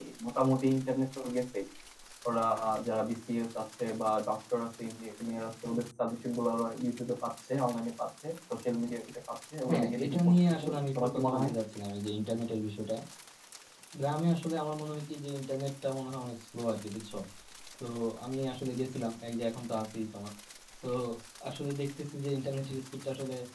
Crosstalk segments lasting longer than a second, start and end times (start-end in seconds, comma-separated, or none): 9.7-11.5